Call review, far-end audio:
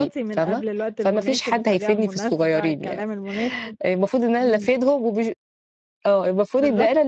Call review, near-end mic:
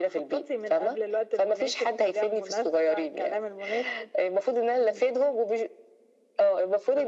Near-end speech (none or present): none